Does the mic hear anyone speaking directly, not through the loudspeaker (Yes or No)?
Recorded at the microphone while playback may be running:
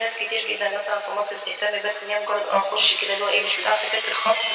No